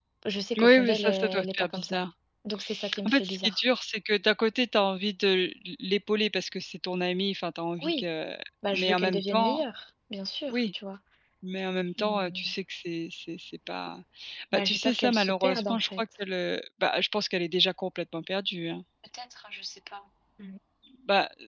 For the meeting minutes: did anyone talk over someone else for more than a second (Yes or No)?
Yes